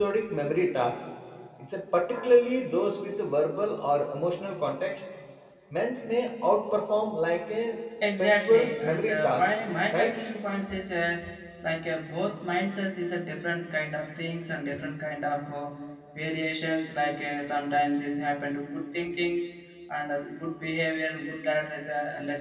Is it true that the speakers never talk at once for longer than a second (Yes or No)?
No